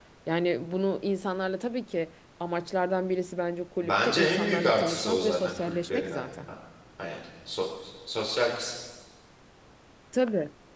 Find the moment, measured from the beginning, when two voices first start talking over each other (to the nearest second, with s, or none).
4 s